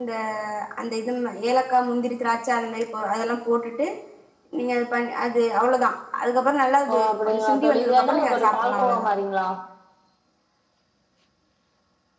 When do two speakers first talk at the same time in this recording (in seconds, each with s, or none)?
6.9 s